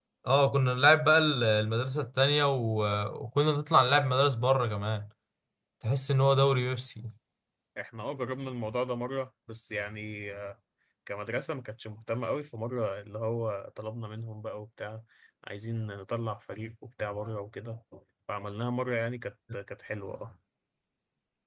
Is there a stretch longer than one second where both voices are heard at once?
No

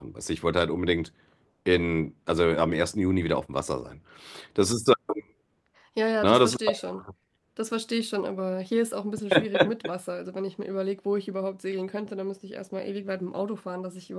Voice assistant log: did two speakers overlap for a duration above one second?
No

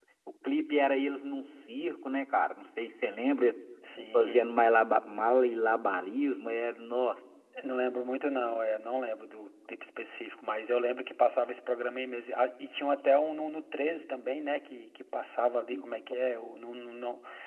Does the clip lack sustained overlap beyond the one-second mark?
Yes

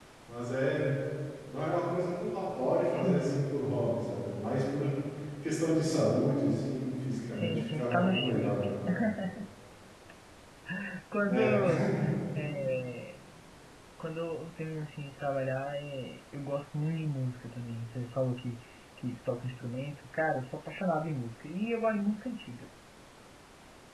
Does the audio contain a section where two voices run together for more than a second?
Yes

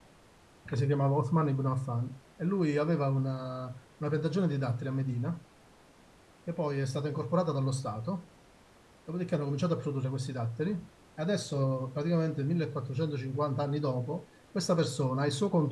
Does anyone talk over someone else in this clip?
No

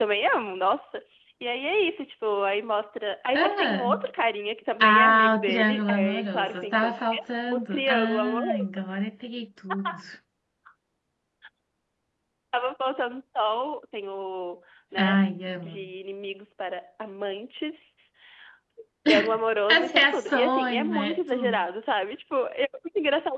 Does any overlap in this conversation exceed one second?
Yes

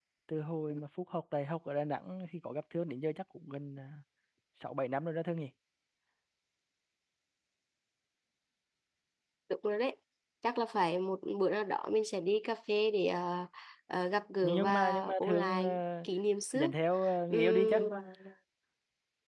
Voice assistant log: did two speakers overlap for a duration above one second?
Yes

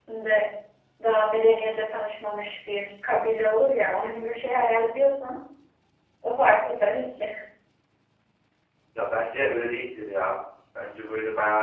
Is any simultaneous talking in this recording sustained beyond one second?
No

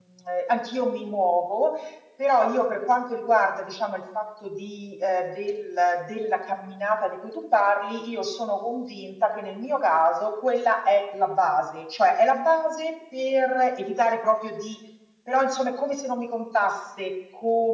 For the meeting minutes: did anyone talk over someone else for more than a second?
No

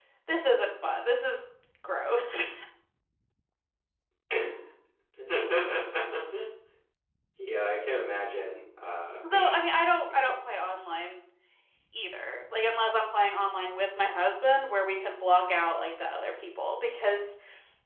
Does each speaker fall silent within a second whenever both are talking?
Yes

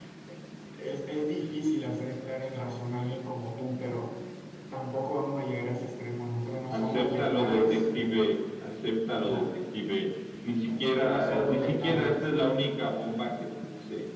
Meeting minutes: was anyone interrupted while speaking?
Yes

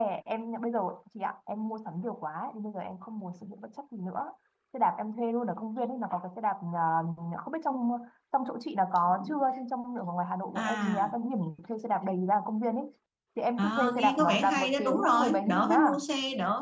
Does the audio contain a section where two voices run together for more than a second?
Yes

